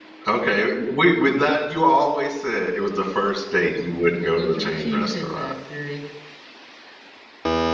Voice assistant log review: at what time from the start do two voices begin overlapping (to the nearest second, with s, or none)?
4 s